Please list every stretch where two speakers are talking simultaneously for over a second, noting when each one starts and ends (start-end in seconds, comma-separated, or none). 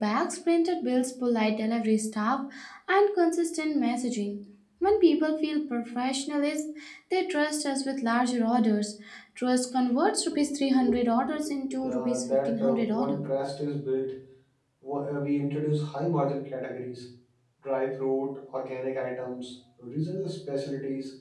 11.9-13.2